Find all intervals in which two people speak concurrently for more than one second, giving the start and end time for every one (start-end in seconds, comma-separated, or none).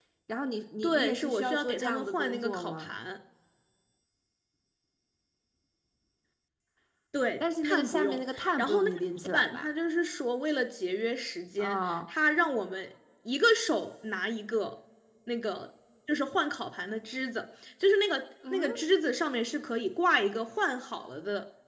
0.8-2.9, 7.6-9.7